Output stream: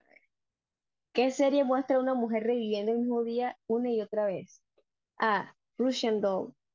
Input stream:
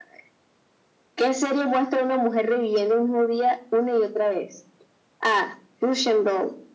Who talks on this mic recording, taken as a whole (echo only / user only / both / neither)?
echo only